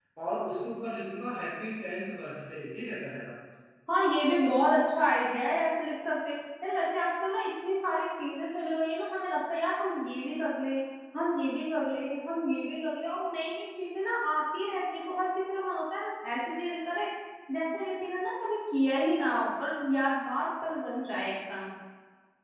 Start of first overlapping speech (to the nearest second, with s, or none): none